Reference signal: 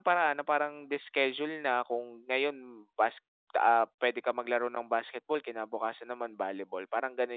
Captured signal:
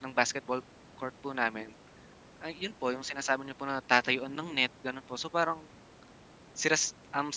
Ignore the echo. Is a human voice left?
Yes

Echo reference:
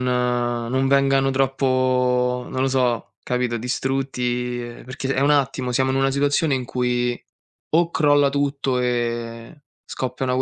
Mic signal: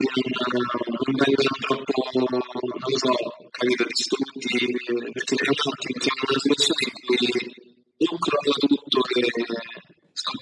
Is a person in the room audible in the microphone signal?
No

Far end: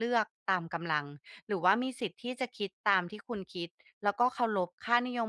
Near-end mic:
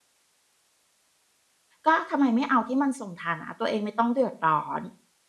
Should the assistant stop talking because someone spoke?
Yes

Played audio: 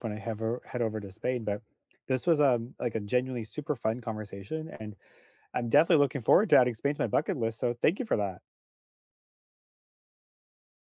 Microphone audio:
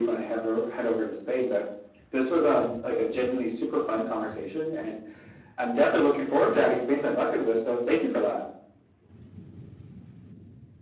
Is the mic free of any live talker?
Yes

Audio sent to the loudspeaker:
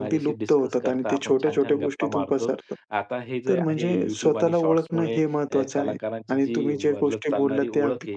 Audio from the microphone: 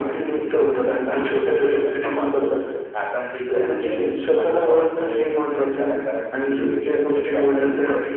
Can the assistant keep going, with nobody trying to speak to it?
Yes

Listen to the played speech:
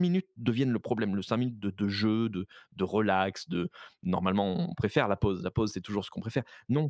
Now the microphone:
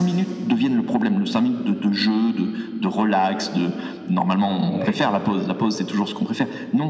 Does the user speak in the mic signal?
Yes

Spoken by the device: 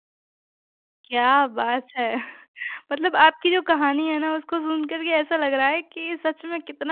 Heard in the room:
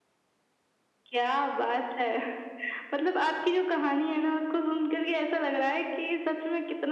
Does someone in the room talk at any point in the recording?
No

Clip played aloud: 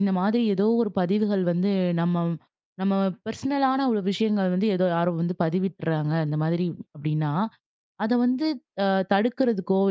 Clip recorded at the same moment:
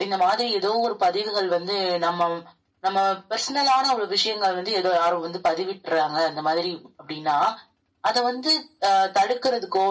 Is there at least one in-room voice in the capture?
No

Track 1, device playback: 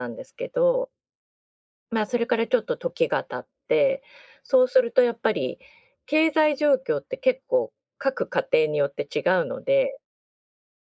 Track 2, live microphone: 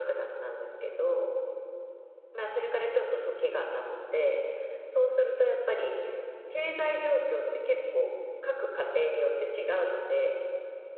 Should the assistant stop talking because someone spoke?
No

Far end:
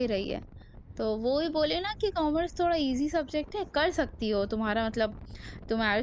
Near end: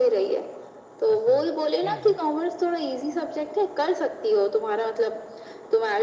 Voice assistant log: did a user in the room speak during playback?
Yes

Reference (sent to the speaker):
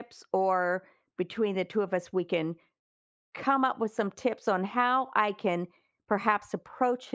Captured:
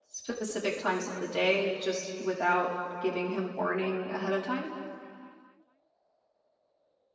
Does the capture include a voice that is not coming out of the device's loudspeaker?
Yes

